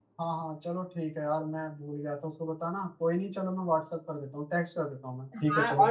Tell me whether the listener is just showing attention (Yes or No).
No